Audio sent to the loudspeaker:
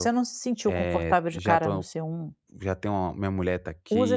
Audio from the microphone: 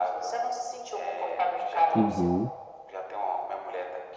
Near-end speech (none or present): present